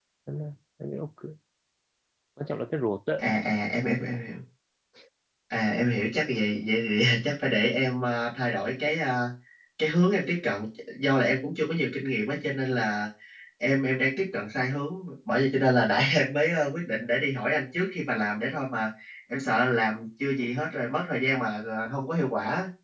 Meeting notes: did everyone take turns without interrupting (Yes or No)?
Yes